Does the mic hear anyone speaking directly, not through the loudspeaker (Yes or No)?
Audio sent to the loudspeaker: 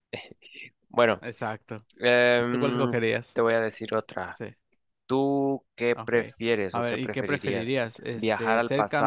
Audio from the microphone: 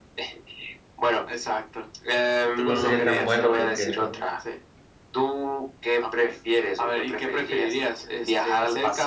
Yes